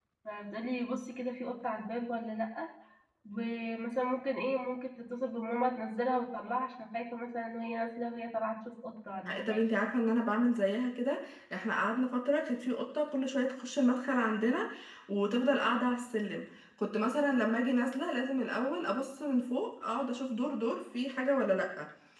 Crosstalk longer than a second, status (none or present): none